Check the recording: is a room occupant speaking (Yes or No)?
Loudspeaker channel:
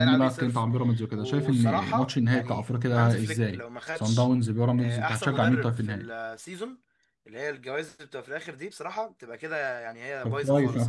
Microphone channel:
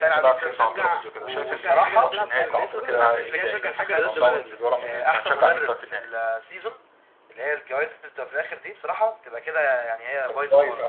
Yes